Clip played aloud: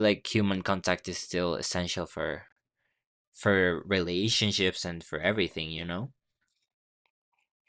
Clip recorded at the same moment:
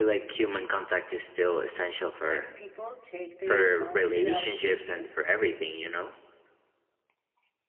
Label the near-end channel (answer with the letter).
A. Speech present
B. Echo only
A